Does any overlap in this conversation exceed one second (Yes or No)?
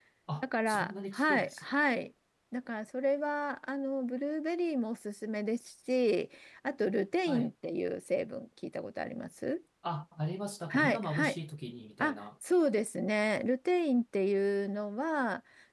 Yes